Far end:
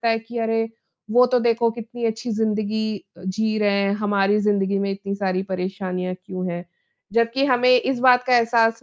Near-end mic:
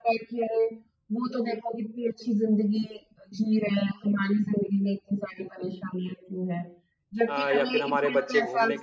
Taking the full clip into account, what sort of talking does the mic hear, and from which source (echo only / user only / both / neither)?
both